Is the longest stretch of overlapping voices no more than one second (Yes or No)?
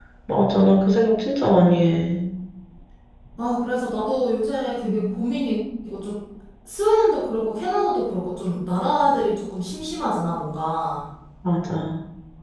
Yes